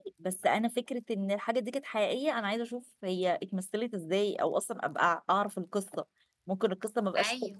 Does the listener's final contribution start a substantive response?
No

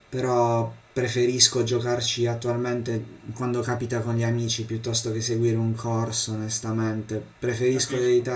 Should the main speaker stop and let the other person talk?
No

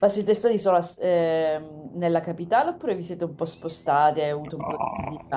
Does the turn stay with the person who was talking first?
No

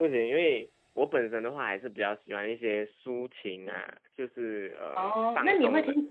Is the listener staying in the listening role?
No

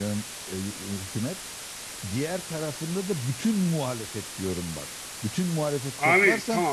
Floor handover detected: No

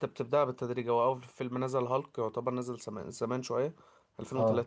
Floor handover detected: No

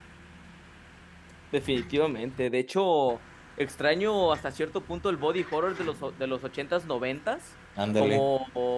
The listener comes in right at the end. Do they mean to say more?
No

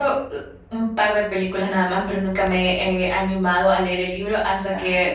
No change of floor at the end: Yes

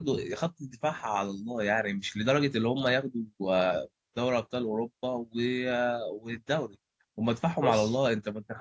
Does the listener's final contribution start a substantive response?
No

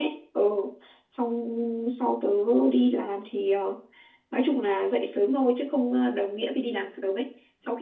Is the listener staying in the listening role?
Yes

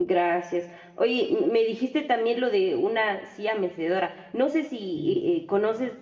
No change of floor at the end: Yes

